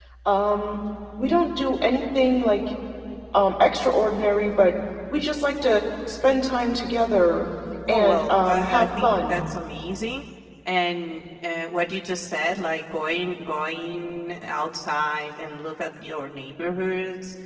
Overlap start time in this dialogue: 7.9 s

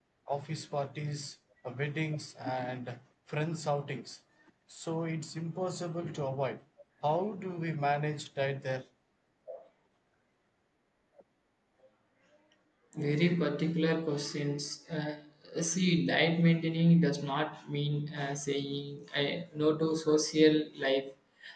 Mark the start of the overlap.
none

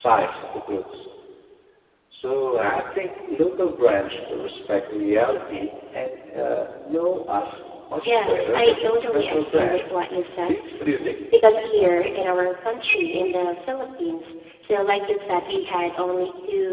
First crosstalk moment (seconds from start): 8.0 s

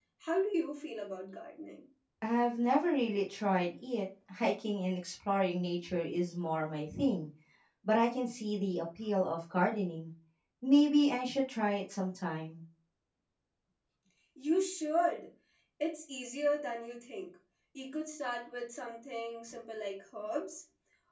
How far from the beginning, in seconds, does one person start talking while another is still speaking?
none

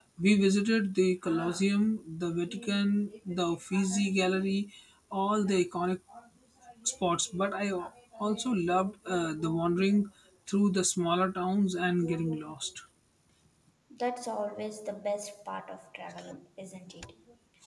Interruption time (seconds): none

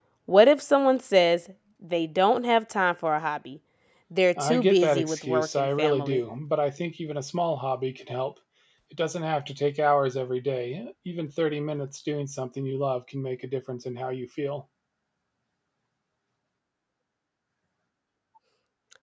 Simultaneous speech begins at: 4.4 s

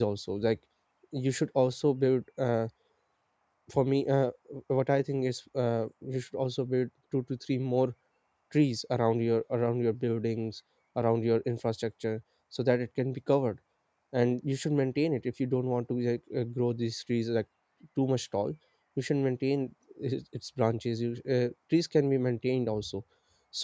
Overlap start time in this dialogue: none

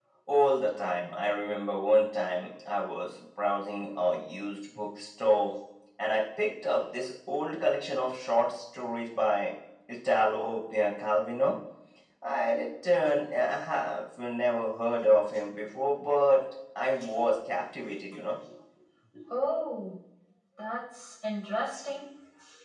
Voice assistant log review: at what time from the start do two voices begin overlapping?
none

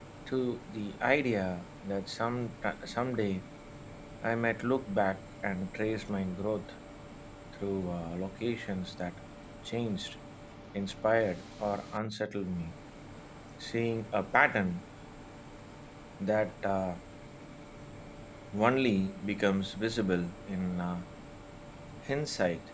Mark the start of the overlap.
none

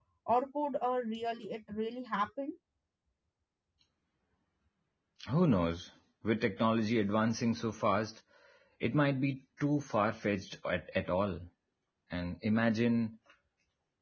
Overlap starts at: none

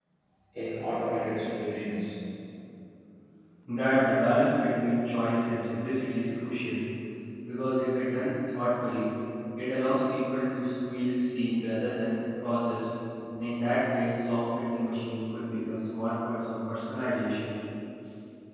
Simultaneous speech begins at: none

